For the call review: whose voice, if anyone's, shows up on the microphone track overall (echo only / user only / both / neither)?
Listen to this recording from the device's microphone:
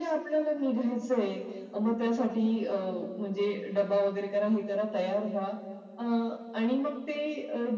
echo only